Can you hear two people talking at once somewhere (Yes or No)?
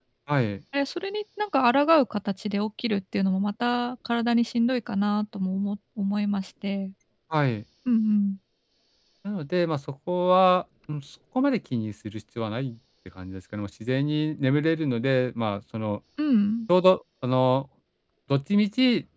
No